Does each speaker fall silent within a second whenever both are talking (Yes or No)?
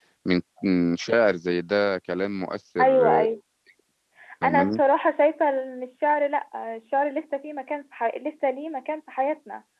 Yes